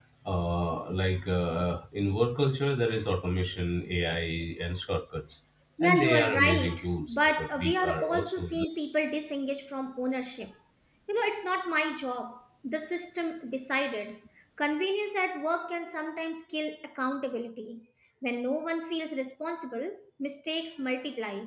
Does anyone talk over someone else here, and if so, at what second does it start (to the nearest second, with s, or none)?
6 s